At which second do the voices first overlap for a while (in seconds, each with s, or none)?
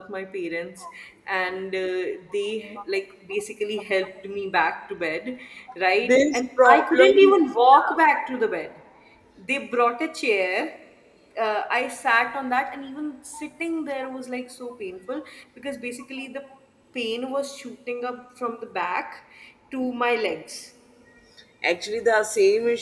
6.0 s